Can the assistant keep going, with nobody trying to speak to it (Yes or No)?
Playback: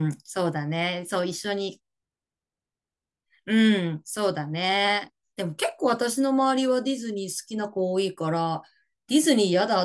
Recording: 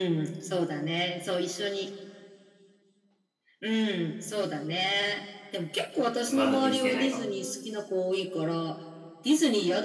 No